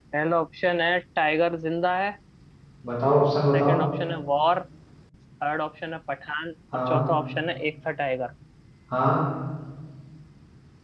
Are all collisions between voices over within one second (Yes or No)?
Yes